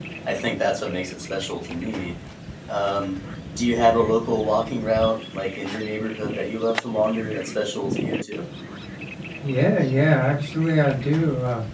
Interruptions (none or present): none